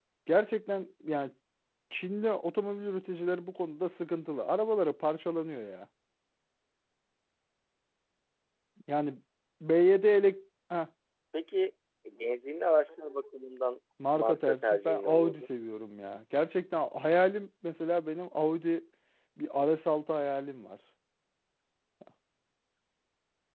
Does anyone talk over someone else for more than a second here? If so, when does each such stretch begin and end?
14.1-15.4

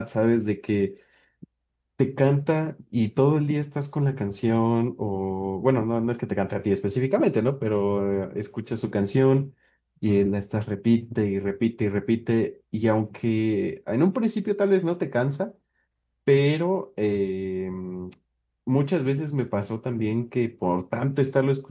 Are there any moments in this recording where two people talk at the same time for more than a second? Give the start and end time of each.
none

